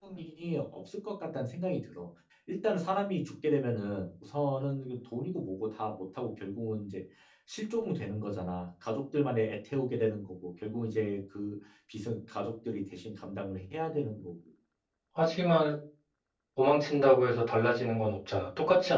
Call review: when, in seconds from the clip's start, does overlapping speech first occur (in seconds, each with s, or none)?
none